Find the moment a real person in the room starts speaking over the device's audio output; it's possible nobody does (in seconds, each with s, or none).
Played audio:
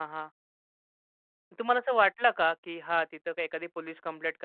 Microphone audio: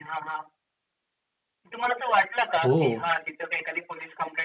2.6 s